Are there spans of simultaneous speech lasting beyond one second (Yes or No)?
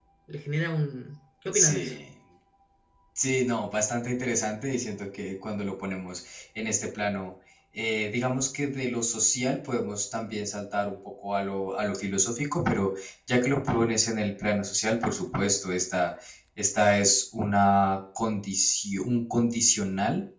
No